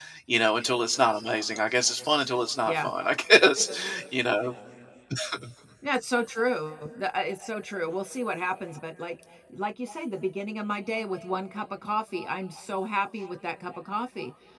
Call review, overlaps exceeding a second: none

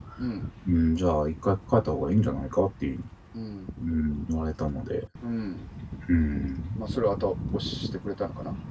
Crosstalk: none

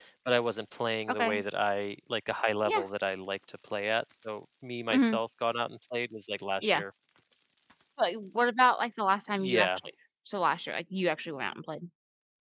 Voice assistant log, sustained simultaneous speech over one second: none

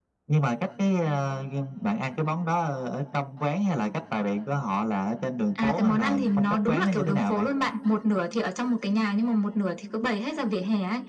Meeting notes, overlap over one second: present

